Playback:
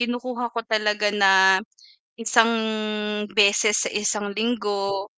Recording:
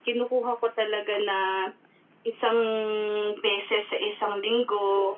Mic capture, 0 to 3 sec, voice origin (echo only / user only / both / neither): echo only